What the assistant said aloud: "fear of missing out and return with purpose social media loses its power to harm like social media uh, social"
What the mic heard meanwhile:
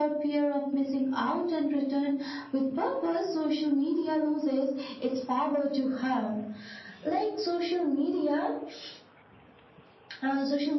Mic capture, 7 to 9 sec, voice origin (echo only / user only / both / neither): echo only